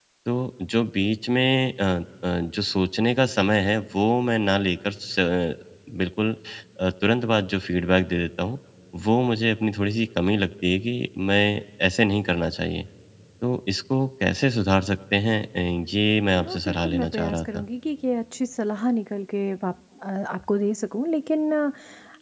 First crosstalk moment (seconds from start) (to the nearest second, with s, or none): 16 s